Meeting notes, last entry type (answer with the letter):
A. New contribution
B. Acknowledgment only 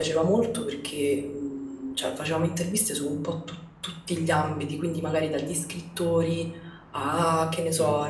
B